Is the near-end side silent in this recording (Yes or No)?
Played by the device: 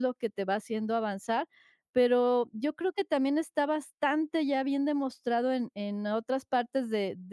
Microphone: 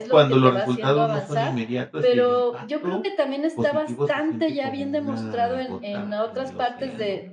No